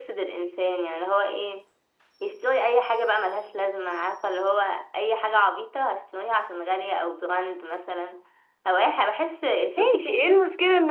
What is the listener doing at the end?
taking over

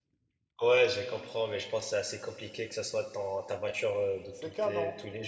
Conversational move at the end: taking over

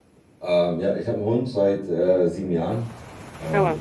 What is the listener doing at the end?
listening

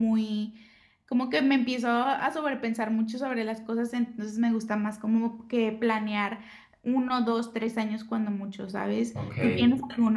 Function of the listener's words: listening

